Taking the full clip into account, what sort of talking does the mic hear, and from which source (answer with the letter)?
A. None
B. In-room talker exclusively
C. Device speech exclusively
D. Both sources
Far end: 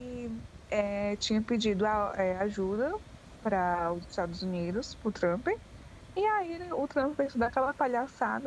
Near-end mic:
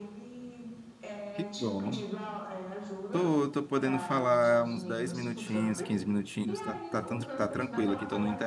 D